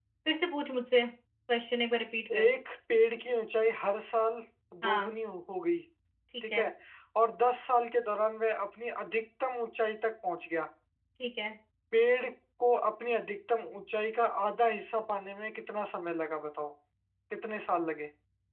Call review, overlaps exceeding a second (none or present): none